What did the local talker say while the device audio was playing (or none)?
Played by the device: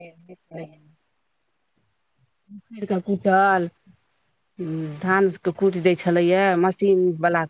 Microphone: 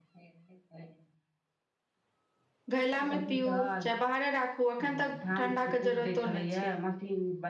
घैला मे पीउ चाहे बाहरे राखू अखन तक ठंडा के जरूरतो नहि छै